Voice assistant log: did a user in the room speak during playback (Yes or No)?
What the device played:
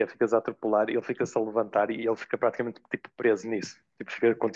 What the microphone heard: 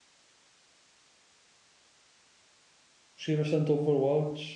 Yes